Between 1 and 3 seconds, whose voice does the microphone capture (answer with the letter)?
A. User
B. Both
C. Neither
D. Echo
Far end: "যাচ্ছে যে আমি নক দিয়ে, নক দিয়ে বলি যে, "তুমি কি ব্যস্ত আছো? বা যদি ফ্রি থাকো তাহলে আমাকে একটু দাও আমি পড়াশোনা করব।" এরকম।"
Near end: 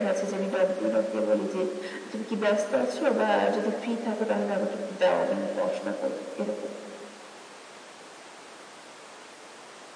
D